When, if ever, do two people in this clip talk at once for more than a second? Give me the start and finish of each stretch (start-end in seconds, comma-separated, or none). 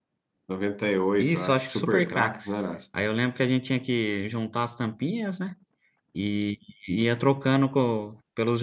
1.2-2.5